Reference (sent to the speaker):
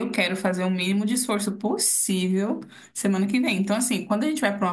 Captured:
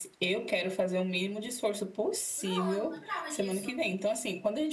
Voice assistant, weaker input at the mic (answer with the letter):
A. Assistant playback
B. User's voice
B